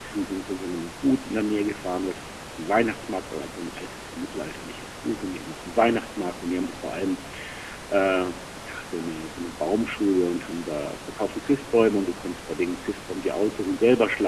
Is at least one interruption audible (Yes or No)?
No